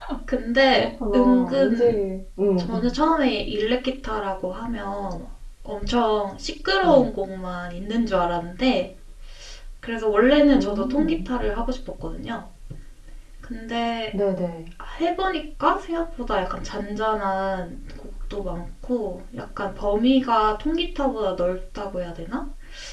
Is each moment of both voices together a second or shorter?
No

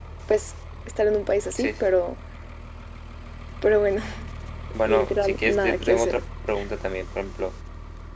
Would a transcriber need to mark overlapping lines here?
Yes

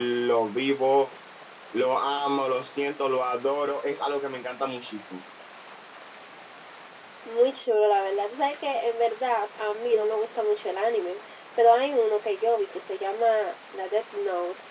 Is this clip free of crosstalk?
Yes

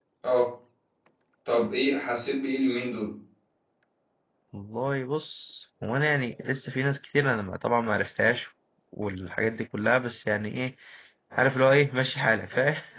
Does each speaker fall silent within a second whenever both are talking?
Yes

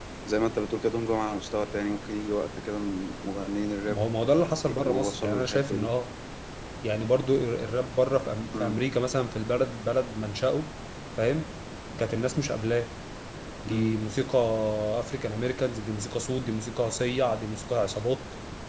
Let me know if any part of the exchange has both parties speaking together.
Yes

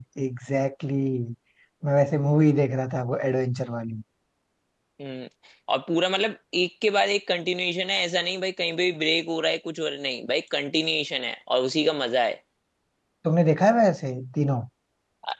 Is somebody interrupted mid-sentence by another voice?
No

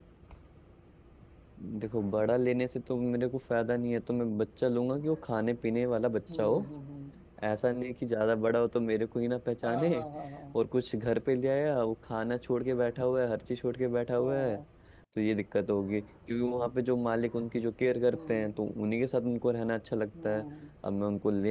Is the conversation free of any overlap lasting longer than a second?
Yes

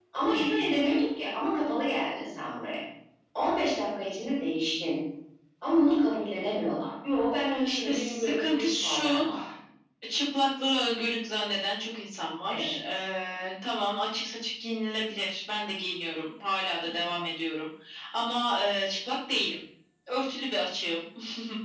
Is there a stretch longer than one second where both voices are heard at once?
Yes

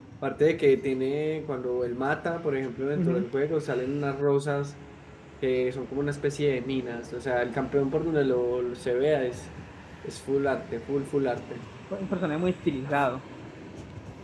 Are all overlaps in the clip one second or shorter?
Yes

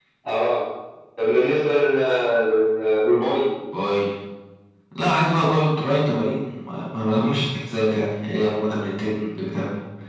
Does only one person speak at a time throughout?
Yes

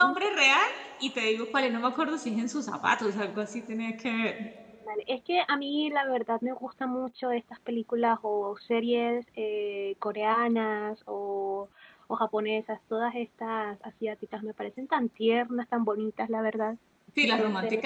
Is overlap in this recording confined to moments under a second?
Yes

